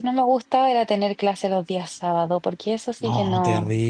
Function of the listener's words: taking over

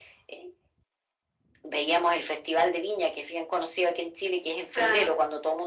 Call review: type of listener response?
listening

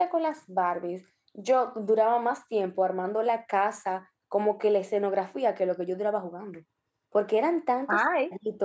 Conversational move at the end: listening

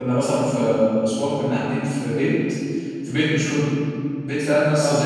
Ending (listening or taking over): listening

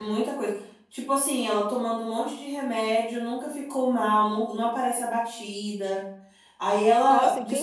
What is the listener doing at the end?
taking over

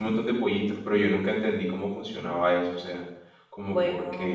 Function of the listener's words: listening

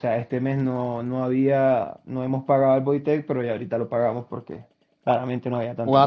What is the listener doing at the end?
taking over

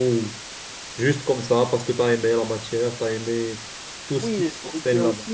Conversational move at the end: taking over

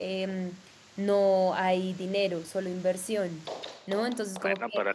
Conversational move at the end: taking over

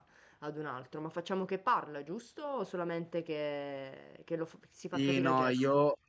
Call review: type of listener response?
taking over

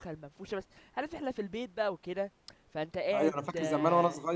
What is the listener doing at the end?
taking over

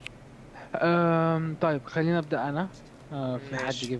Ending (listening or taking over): listening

